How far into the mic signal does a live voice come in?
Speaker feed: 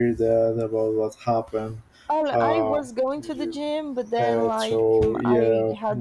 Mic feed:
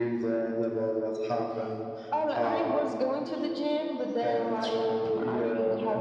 none

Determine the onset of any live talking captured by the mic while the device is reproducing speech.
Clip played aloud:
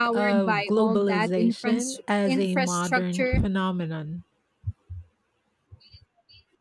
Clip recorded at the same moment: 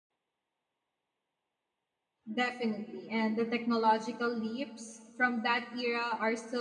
2.3 s

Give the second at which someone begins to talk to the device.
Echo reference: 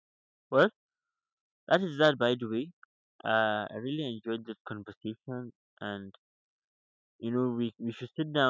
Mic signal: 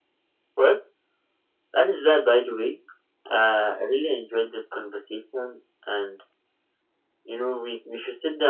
none

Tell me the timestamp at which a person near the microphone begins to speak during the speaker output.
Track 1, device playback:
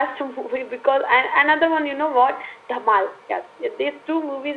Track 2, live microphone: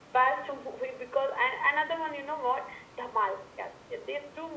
none

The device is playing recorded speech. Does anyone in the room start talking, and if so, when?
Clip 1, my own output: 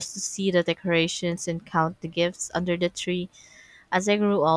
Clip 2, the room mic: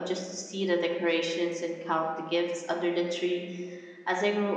none

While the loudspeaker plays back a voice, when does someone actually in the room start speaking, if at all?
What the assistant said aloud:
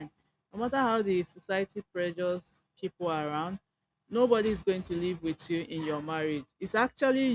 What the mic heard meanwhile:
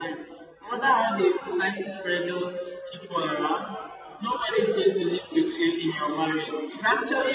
none

